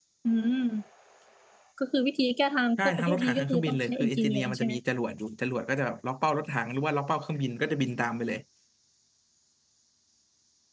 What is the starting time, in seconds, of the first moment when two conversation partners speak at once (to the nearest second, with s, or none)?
3 s